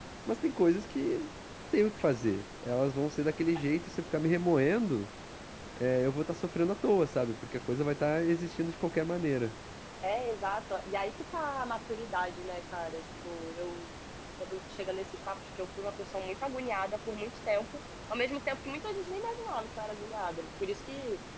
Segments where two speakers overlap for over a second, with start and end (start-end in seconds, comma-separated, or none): none